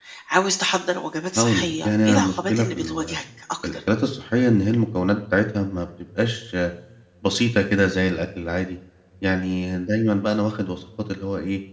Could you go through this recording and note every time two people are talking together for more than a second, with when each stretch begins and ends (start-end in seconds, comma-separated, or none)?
1.4-3.2